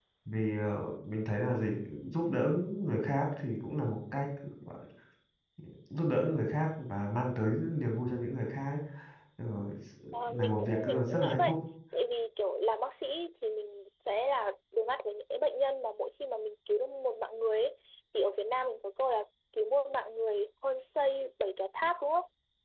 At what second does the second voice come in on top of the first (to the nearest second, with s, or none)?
10 s